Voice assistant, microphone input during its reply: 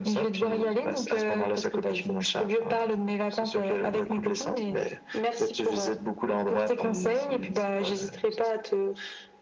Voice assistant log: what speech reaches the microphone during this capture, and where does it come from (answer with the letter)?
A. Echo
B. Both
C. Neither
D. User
A